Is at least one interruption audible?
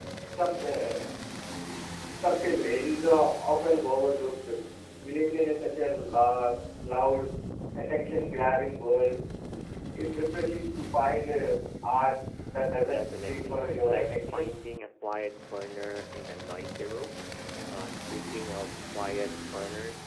Yes, from 12.8 s

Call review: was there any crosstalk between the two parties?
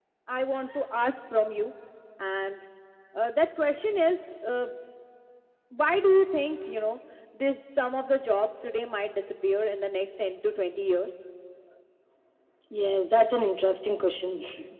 No

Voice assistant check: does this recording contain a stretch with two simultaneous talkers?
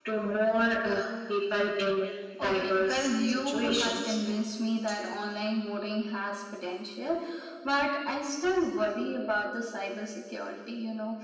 Yes, from 2.4 s

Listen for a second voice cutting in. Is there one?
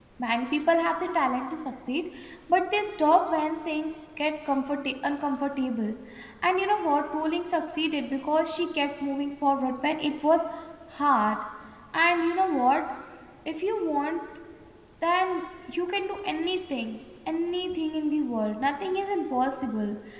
No

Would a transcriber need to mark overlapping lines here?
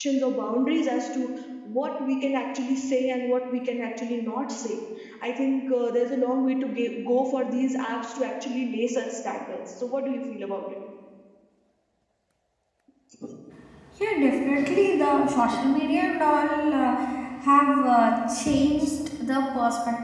No

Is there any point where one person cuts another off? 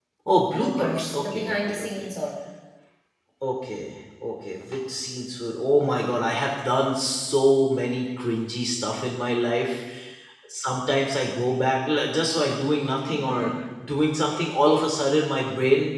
Yes, from 0.5 s

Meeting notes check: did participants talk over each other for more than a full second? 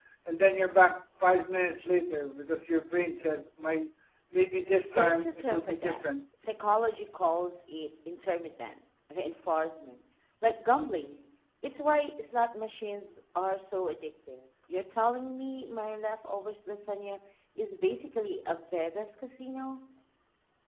Yes, from 4.8 s

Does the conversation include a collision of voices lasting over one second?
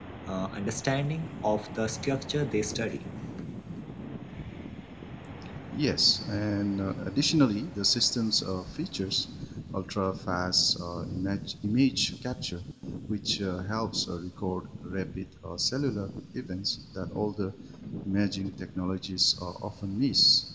No

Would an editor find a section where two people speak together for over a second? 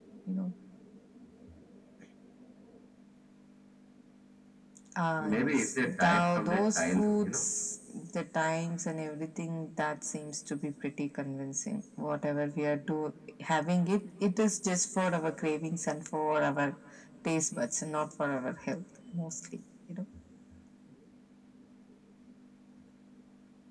Yes, from 5.2 s

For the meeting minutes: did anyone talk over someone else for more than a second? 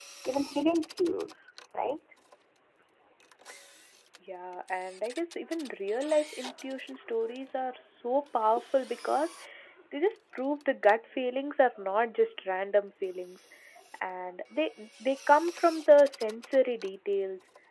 No

